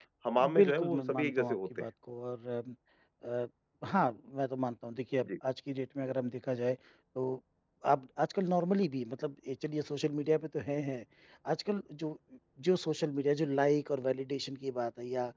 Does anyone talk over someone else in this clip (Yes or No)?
Yes